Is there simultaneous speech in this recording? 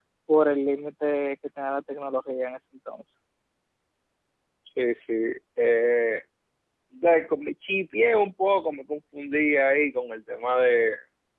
No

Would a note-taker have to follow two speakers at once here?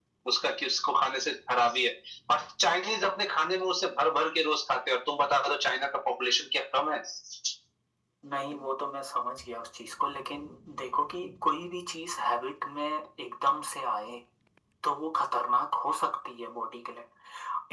No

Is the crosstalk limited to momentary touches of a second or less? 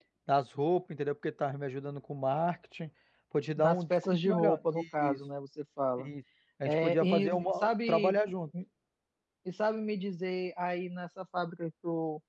No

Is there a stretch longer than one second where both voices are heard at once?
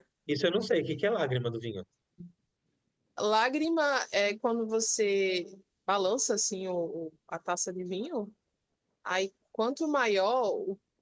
No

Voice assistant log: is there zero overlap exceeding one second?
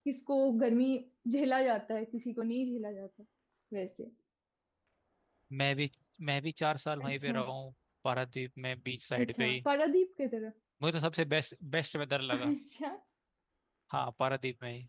Yes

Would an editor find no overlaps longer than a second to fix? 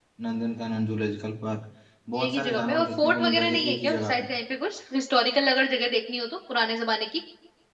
No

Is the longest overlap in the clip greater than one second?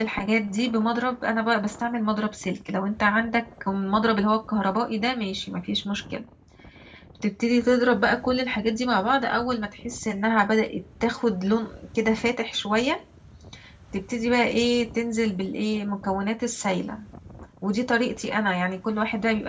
No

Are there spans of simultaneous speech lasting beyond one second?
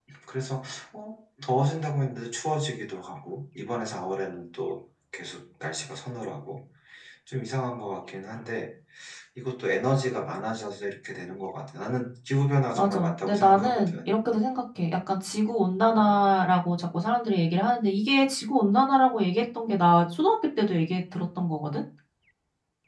Yes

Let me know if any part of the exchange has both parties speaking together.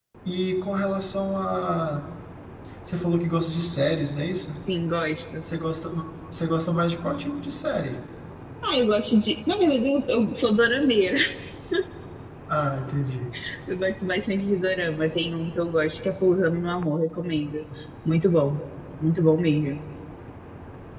No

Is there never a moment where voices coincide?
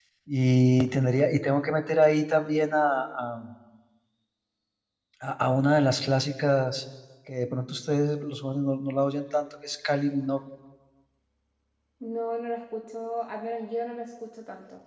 Yes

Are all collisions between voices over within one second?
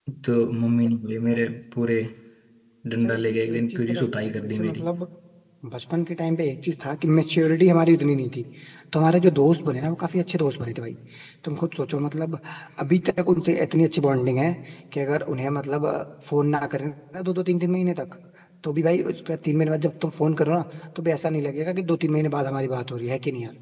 No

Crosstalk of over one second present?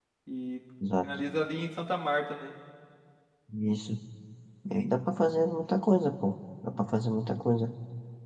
No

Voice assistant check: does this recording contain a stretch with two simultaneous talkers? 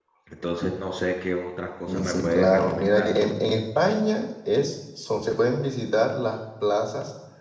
Yes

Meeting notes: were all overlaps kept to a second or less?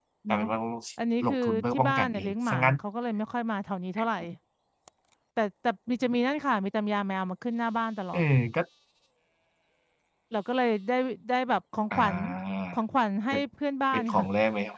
No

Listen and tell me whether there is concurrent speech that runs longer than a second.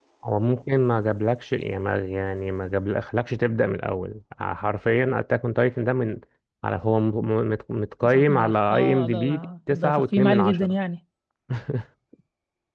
Yes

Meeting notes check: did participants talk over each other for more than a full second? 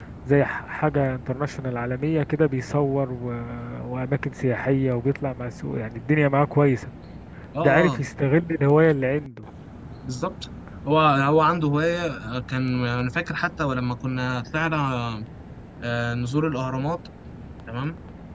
No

